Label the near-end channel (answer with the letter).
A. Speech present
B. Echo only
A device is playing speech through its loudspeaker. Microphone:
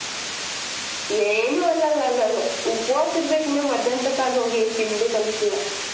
B